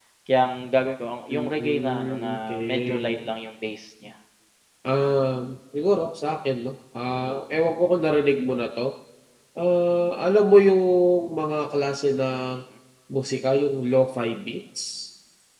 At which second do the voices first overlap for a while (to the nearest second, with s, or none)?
1 s